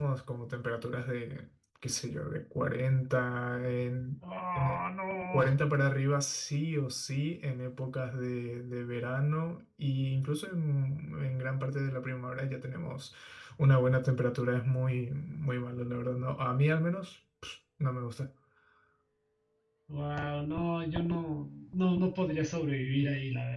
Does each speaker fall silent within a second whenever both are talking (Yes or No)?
Yes